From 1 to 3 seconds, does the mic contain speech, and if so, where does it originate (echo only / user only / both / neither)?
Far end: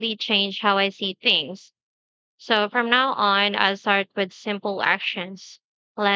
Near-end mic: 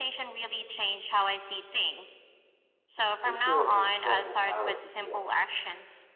echo only